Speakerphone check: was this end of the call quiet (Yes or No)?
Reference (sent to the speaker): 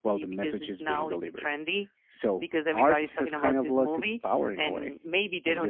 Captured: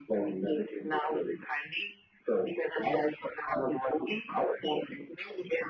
Yes